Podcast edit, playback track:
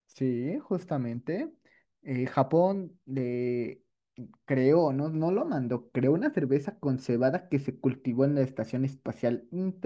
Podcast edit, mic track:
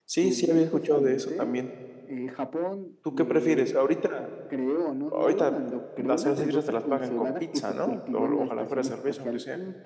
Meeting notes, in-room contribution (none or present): present